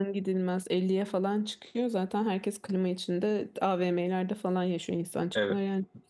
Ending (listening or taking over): taking over